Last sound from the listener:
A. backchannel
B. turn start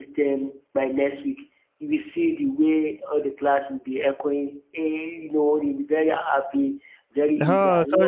B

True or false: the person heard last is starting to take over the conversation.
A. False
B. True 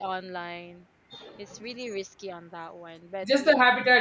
B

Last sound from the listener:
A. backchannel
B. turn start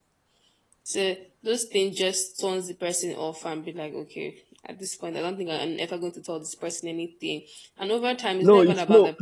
B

